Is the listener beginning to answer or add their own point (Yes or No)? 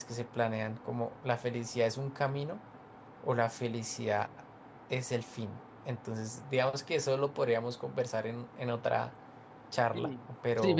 Yes